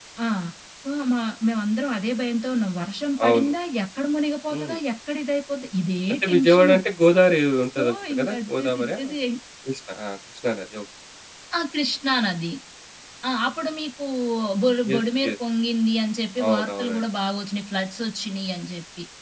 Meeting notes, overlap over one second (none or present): present